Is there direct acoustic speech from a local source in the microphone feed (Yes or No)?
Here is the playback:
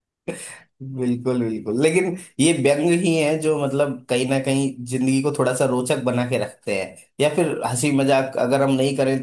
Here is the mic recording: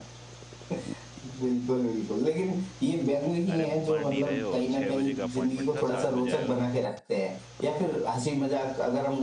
Yes